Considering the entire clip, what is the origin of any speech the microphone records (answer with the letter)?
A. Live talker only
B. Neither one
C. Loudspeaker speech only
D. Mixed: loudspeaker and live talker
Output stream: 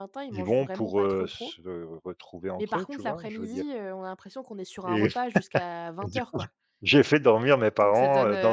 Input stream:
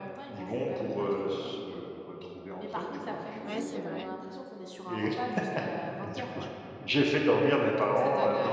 D